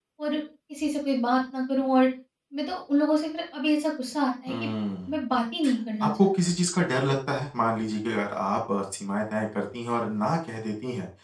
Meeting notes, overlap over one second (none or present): none